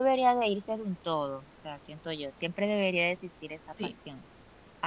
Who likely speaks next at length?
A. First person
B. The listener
A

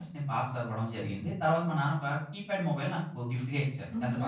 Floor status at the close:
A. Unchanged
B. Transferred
B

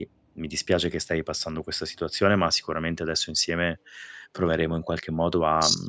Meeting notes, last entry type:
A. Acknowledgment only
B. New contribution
A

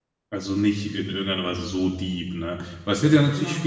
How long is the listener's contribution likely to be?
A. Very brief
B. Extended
A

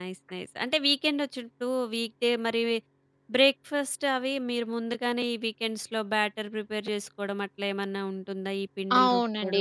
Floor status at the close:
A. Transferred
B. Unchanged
A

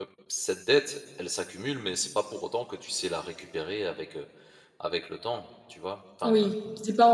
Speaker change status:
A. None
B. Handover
B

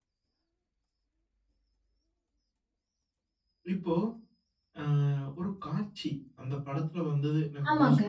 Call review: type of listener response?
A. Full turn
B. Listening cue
B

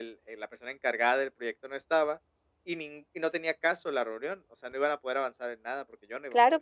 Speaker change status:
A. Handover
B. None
A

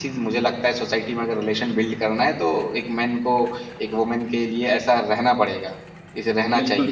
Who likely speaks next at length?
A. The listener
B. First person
A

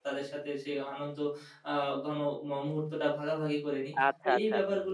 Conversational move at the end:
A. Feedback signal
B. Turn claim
B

